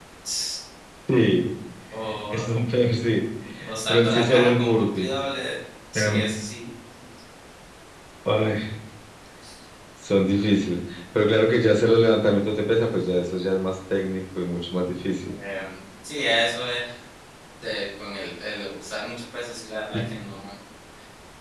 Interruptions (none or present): present